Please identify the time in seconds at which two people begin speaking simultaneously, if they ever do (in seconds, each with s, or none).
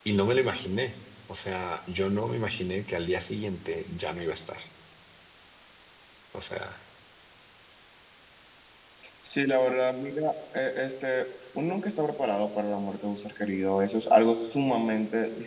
none